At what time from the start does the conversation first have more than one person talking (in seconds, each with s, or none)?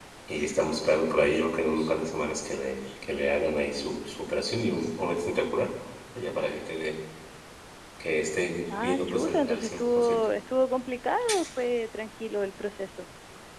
8.8 s